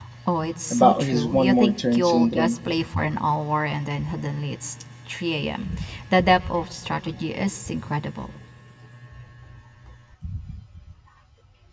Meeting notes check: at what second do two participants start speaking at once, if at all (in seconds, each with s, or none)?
0.7 s